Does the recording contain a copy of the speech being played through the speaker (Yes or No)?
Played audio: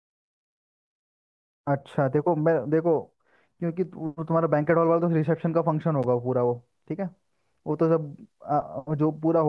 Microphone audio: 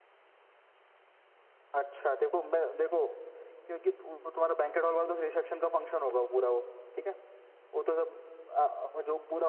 Yes